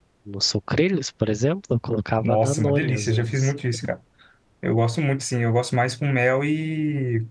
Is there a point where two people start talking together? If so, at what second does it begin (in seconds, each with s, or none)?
2.2 s